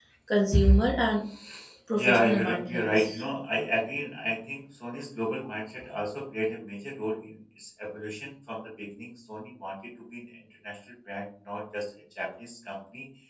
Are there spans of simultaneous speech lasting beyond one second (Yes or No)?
Yes